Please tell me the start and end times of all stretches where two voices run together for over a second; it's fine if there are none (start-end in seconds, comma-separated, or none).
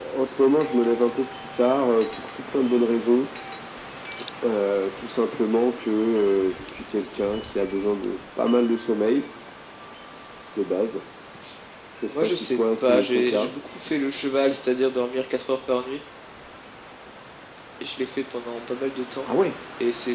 12.2-13.5